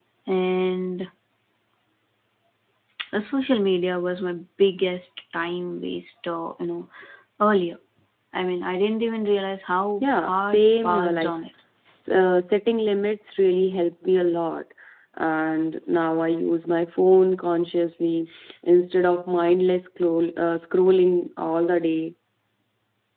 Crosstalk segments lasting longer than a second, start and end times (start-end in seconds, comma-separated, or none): 10.0-11.3